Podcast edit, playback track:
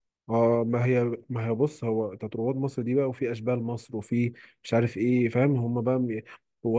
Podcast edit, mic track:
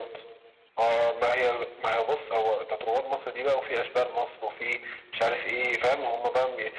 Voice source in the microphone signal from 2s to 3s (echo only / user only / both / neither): echo only